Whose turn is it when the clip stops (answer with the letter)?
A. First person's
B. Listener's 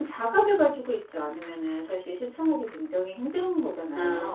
B